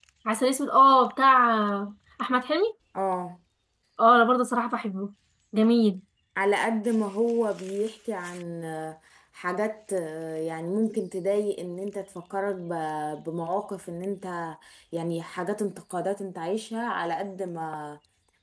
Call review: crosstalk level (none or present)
none